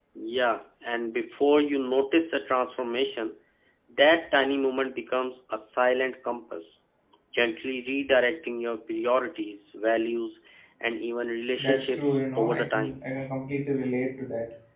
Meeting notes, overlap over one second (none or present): present